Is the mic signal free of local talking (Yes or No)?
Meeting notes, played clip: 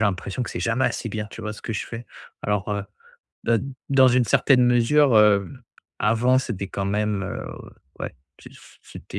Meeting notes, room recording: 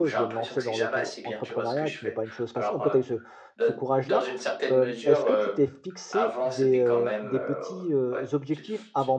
No